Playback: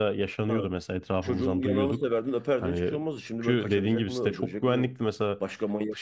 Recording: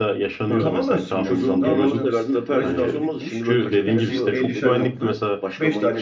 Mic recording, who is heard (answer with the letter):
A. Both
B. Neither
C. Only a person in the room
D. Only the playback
A